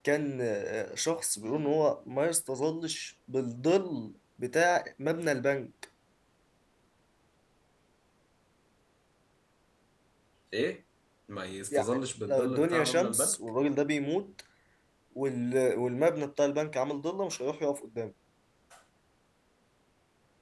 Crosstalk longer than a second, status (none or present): present